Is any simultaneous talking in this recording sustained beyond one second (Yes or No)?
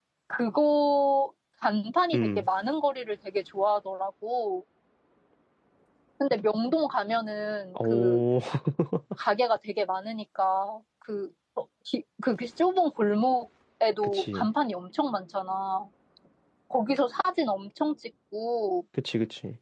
No